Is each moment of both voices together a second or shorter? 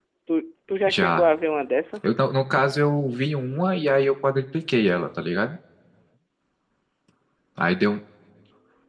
Yes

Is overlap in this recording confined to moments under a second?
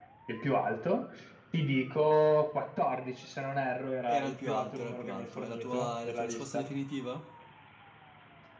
No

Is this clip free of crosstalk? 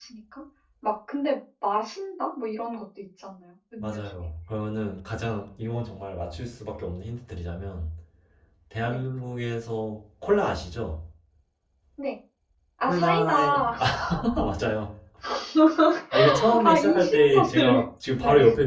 No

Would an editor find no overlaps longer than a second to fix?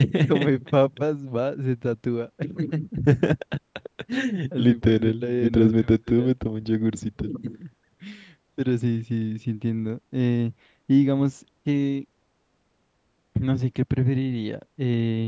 No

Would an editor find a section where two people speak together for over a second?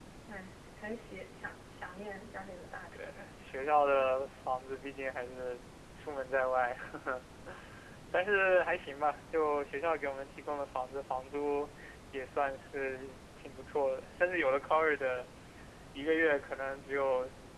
No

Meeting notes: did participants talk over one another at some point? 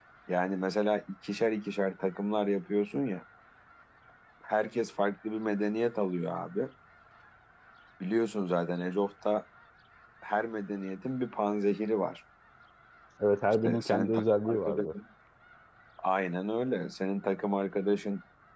Yes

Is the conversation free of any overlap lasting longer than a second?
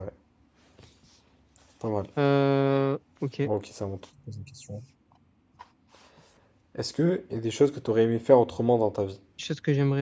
Yes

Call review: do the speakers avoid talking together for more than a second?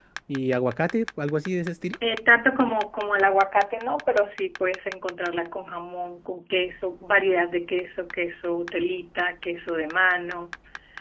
Yes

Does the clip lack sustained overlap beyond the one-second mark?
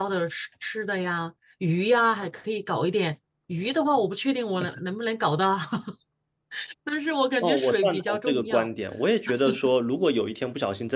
No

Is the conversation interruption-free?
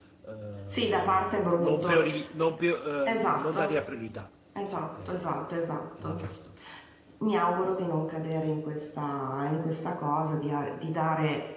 No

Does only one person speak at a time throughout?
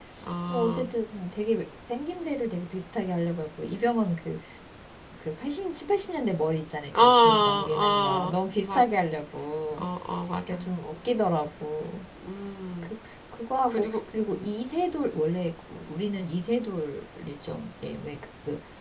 No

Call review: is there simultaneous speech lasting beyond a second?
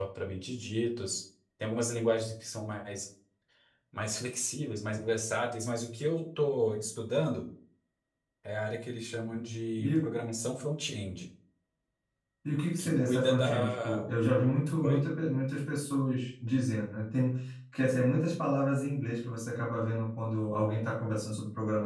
Yes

